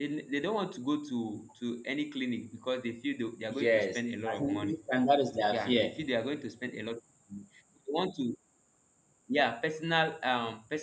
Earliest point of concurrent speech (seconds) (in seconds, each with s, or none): 3.5 s